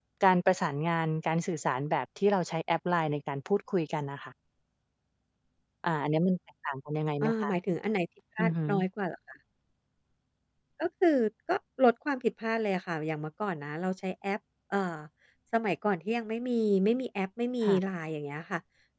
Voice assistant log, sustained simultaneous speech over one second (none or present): none